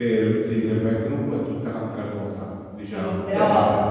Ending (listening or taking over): taking over